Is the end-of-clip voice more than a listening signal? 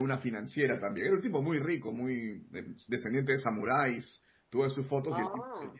No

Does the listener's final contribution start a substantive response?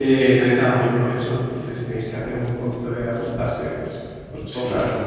Yes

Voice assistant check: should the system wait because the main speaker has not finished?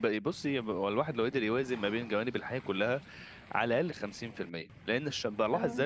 Yes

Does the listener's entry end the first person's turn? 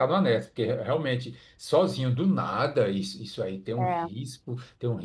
No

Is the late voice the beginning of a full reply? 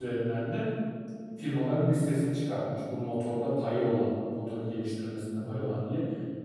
No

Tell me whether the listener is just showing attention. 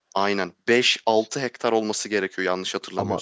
No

